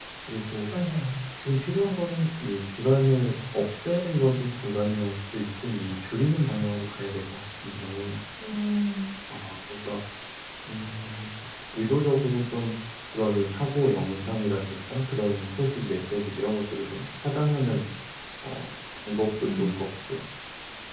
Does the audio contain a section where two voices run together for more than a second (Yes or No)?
No